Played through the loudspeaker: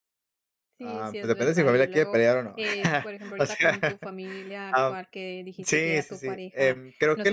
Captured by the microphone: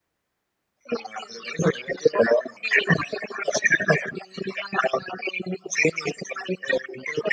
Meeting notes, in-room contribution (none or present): none